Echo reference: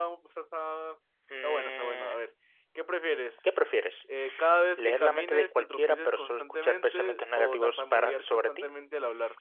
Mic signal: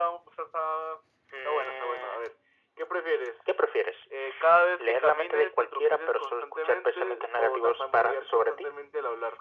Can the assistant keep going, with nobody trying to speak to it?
Yes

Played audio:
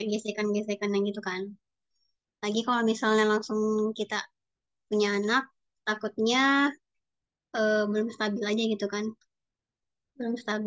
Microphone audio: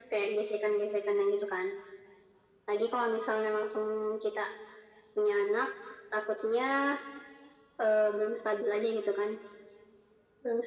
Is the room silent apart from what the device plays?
Yes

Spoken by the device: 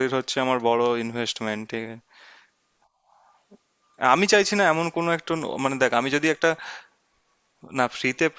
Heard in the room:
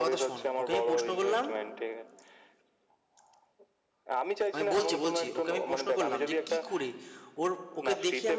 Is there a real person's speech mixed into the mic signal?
Yes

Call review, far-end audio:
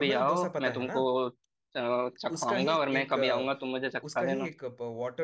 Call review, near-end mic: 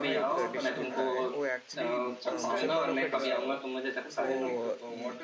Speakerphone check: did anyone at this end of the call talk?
Yes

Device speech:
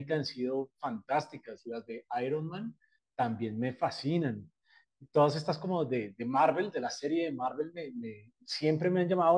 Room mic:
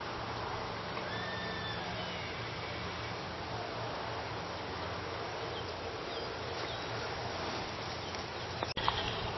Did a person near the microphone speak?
No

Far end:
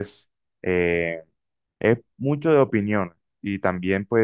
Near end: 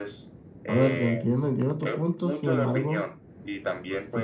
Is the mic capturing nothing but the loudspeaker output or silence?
No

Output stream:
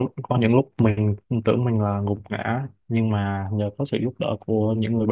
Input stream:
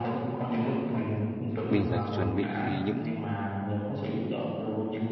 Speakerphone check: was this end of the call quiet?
No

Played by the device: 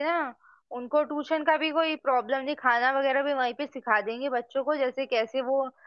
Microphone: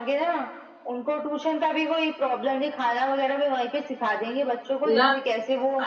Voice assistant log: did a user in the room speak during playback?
Yes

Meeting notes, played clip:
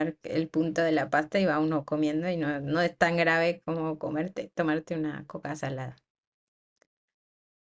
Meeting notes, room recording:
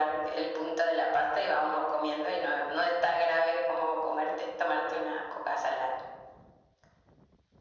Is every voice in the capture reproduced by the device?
Yes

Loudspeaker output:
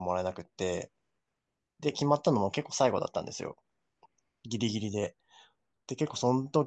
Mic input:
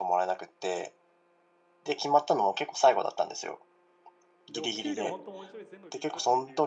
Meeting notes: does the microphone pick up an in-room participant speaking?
Yes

